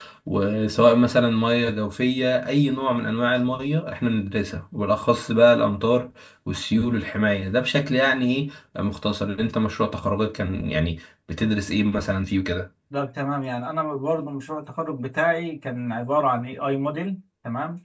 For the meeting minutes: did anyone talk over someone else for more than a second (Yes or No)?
No